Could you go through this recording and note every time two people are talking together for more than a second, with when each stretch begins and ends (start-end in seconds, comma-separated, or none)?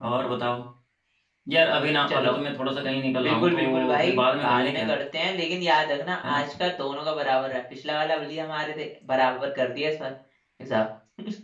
3.2-4.9